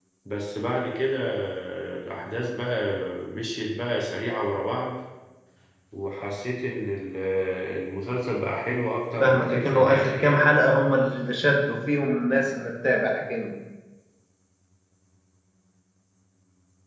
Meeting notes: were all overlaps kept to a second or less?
No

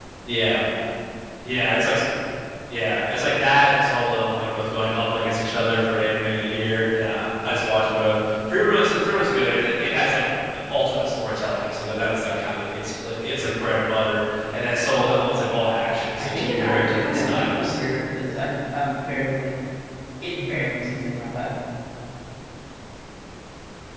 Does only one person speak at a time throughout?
No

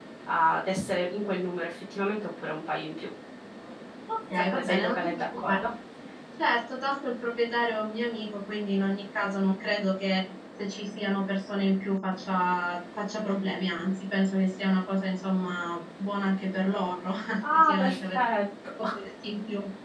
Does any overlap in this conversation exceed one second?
Yes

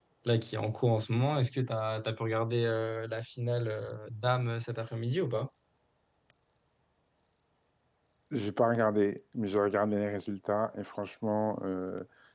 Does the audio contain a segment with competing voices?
No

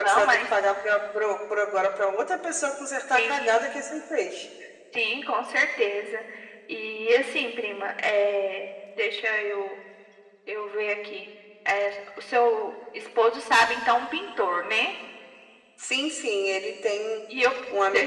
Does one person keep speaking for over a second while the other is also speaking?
No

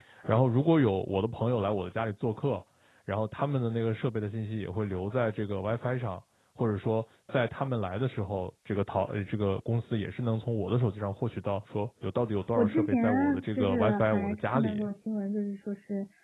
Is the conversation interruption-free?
No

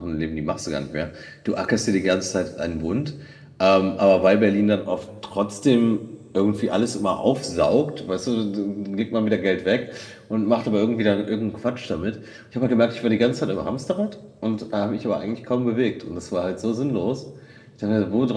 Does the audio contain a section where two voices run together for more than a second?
No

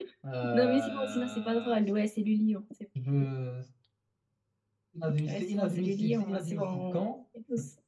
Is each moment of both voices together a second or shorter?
No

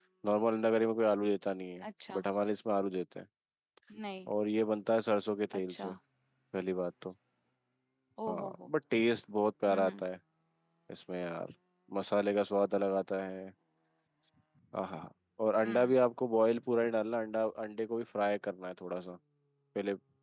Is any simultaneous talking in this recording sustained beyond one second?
No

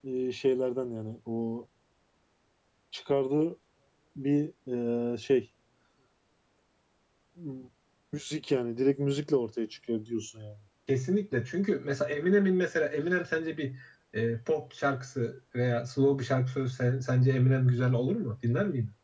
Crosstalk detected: No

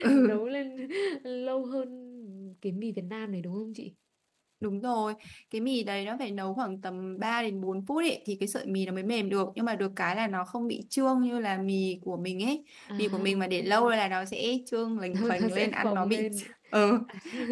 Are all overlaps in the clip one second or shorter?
No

